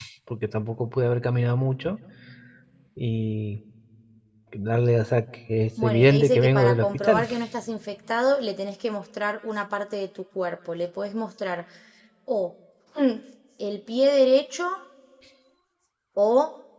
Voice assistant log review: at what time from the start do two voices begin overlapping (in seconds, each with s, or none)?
5.8 s